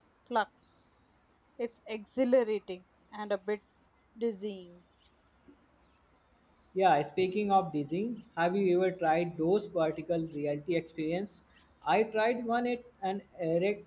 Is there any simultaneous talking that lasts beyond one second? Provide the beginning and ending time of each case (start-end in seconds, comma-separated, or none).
none